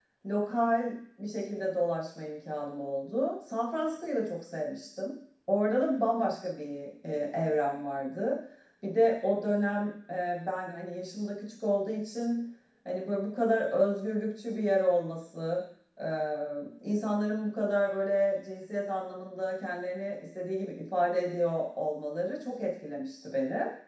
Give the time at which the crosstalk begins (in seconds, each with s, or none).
none